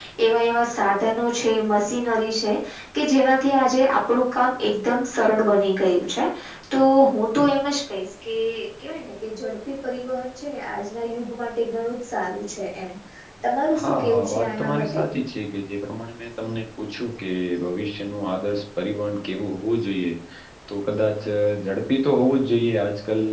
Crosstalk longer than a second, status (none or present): present